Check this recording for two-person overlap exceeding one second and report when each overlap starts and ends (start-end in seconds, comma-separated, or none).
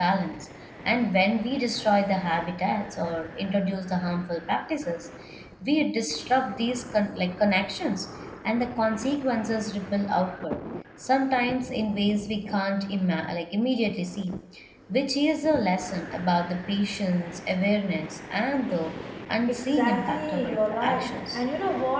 19.5-21.4